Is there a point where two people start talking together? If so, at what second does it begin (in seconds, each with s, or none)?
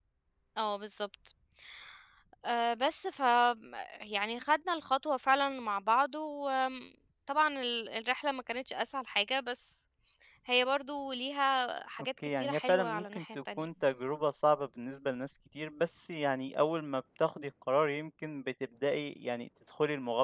12.2 s